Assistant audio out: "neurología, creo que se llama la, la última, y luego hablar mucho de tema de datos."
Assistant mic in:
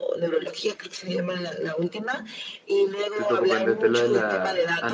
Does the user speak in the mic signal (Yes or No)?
Yes